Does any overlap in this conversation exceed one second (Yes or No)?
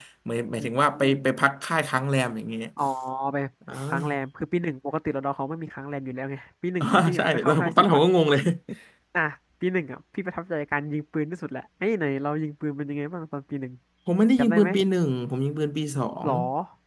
Yes